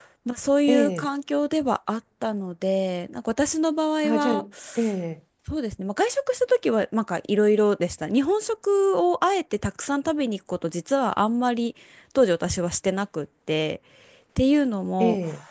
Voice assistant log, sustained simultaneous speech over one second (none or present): none